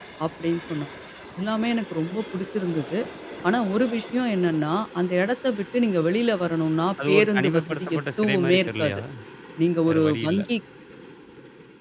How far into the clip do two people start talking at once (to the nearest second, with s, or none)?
7 s